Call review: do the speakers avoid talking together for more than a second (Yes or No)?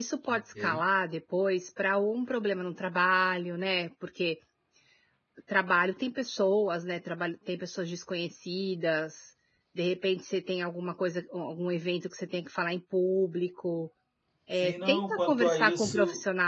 No